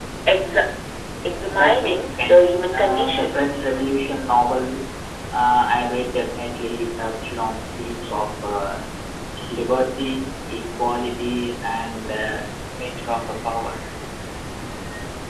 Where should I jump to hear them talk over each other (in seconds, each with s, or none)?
1.5 s